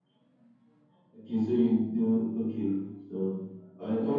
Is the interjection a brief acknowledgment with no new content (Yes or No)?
Yes